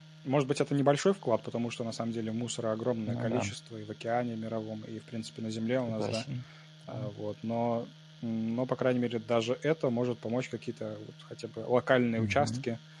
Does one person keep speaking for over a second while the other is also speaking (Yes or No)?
No